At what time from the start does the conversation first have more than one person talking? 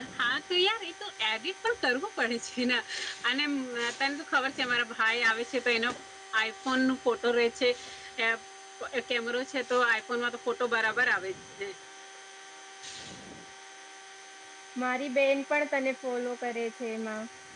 none

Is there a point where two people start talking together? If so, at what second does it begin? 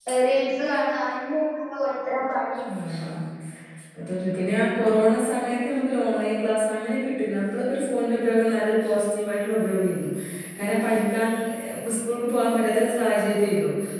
none

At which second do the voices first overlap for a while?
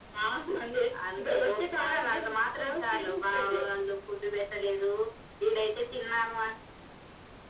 1.2 s

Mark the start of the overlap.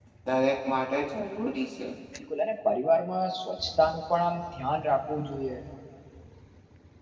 none

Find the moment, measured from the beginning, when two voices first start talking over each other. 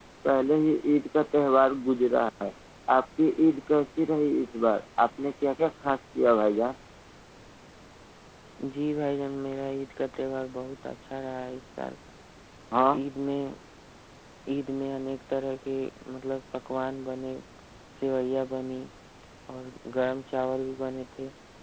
none

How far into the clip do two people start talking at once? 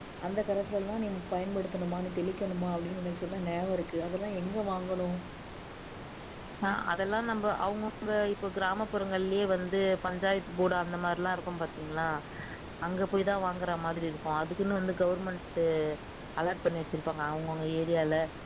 none

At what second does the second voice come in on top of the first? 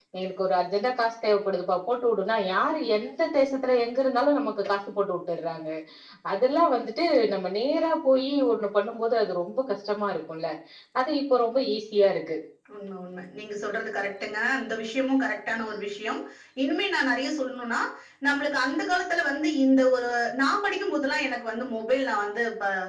none

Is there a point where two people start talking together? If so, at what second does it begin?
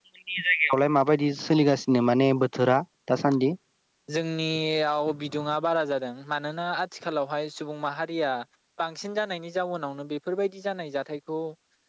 none

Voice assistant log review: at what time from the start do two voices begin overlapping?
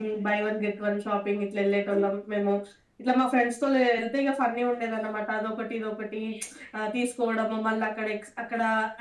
none

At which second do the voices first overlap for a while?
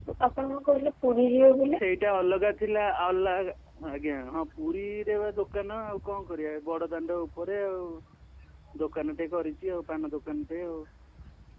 none

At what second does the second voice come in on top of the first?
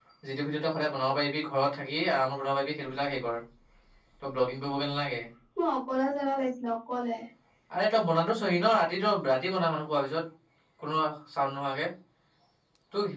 none

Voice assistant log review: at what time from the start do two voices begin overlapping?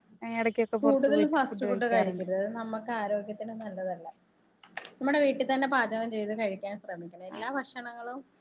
0.8 s

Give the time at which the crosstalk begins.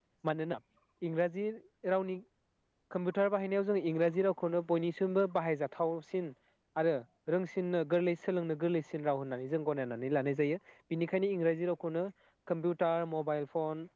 none

